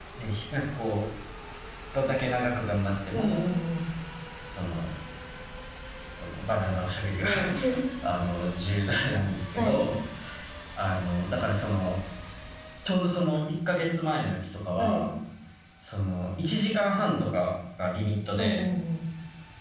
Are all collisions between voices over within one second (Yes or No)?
Yes